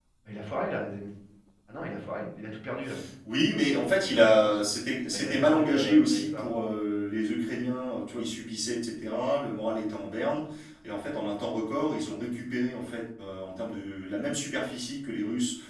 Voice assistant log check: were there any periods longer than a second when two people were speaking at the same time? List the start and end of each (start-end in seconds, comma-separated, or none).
5.1-6.5